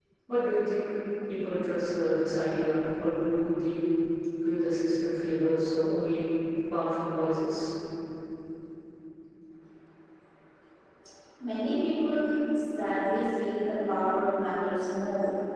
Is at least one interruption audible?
No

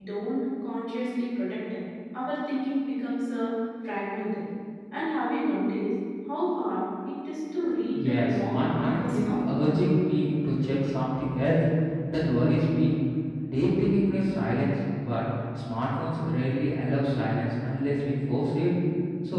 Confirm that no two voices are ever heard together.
No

